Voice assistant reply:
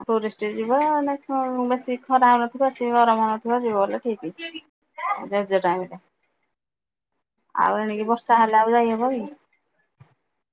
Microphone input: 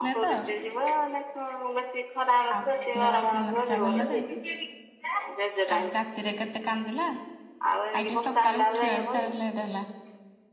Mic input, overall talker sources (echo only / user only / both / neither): both